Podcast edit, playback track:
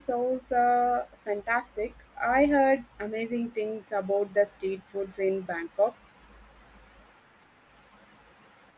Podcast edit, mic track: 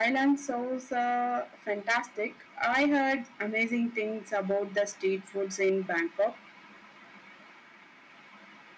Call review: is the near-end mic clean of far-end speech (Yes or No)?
No